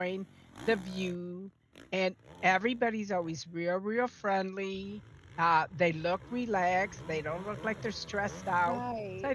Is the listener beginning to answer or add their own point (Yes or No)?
No